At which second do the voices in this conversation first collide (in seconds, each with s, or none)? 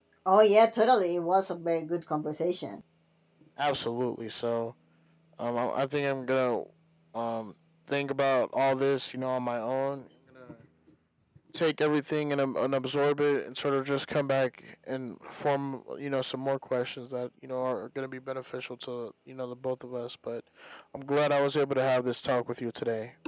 none